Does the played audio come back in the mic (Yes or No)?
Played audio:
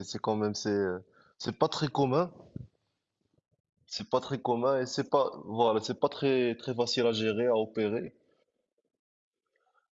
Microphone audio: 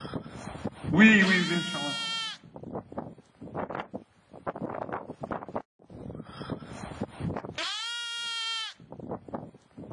No